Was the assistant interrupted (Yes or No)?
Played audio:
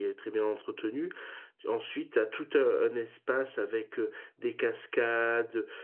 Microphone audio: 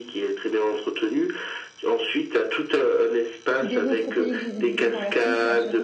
Yes